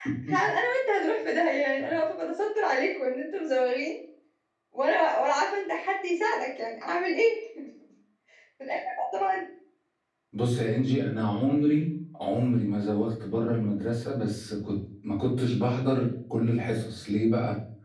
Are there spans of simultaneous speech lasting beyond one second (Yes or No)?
No